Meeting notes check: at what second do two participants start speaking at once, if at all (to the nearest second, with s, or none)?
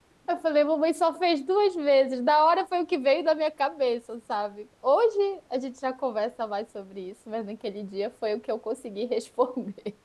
none